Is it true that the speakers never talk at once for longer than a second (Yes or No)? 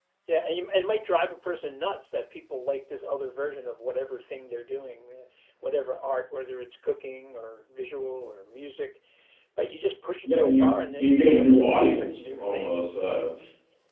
No